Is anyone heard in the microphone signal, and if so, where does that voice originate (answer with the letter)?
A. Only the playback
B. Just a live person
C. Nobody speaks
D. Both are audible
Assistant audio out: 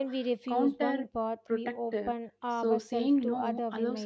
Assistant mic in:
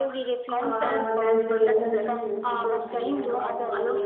D